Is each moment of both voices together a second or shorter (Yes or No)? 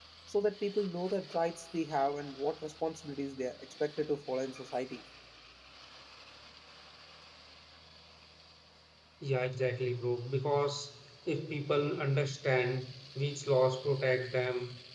Yes